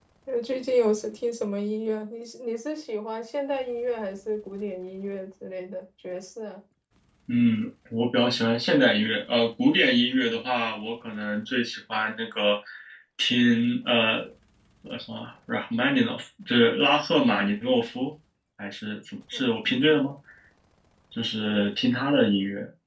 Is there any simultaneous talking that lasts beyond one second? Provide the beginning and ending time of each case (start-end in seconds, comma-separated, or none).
none